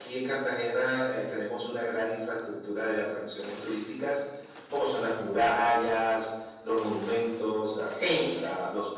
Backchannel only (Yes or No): Yes